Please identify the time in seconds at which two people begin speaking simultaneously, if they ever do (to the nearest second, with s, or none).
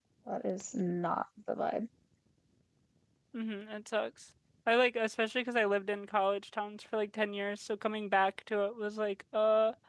none